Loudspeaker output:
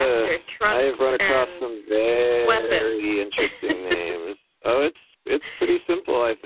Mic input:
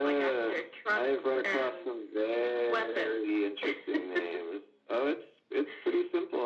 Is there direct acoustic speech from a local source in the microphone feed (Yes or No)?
No